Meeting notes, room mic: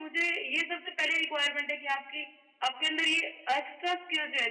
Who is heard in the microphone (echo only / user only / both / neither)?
echo only